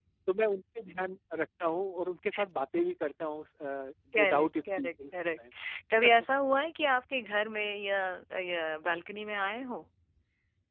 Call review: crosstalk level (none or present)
present